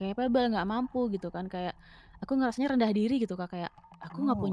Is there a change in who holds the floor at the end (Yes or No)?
No